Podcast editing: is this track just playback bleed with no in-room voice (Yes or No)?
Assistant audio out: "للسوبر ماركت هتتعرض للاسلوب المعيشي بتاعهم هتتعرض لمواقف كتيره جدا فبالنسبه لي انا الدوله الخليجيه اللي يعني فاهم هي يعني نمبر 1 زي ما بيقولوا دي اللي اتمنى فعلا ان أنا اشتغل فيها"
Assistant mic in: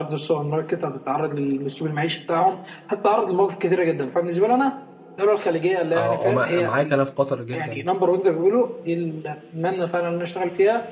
No